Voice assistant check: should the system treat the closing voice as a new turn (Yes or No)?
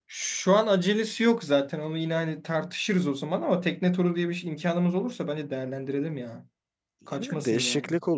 Yes